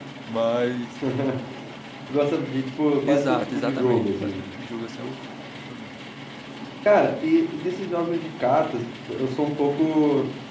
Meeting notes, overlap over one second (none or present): present